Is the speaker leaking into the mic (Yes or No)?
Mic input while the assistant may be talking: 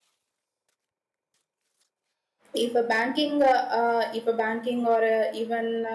No